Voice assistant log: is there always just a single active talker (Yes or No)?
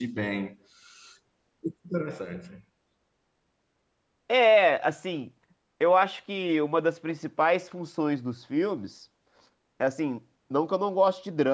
Yes